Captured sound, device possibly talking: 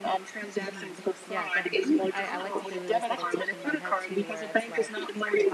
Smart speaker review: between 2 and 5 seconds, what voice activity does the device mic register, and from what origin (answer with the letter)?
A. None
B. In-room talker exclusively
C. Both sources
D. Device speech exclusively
C